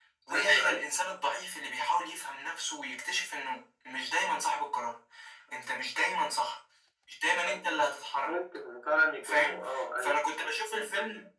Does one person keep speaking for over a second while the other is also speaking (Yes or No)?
No